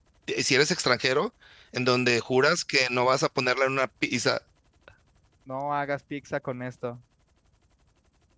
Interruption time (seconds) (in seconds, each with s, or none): none